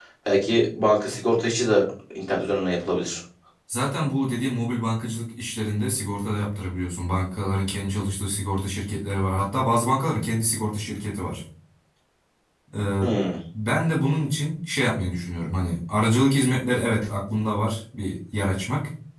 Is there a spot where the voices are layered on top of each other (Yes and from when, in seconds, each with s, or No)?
No